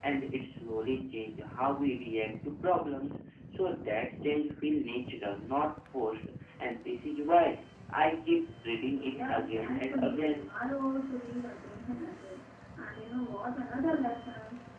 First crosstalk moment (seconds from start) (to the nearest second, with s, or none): 9 s